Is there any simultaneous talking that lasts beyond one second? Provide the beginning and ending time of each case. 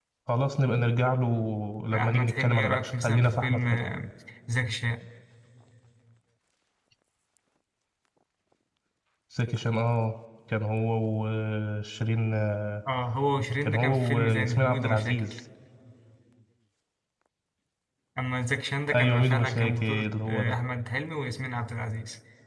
1.9-3.8, 13.6-15.2, 18.9-20.6

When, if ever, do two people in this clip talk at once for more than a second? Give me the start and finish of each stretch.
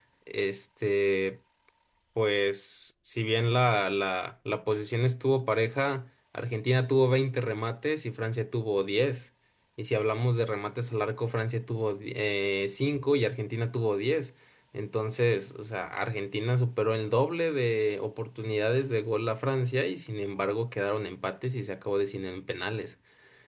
none

